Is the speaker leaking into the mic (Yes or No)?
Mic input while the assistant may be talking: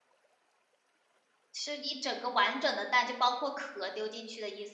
No